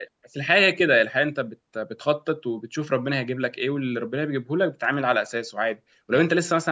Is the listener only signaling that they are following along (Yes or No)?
Yes